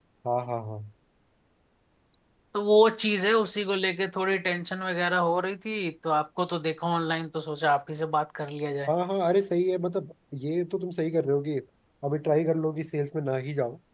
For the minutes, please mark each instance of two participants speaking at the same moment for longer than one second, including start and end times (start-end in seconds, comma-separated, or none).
none